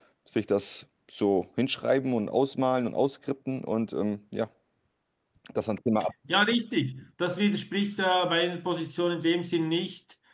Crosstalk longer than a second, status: none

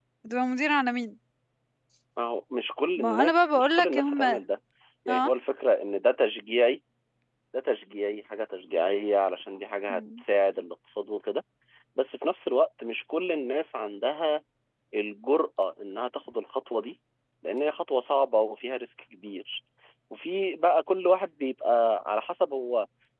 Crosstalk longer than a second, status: present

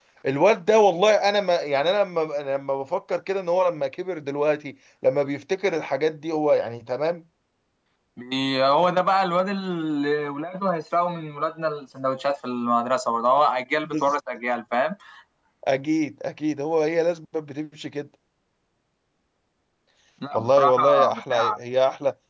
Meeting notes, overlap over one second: present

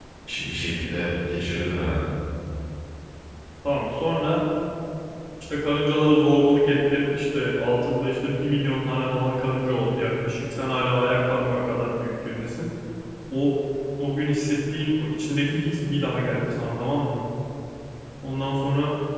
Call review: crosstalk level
none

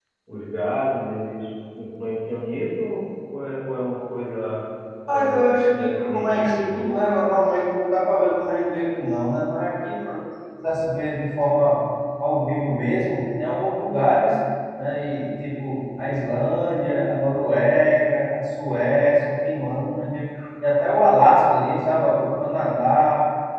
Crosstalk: present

